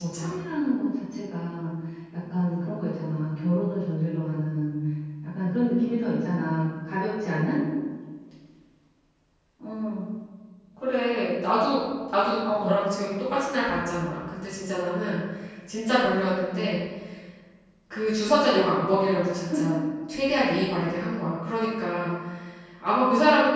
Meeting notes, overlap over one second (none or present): none